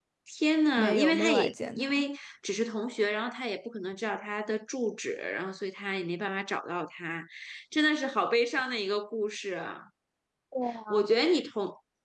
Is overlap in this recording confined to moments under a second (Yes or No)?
No